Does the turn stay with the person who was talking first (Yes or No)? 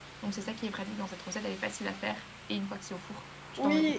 No